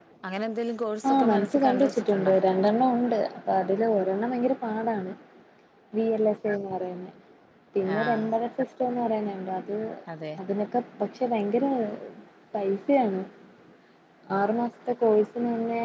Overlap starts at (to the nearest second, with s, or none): 1 s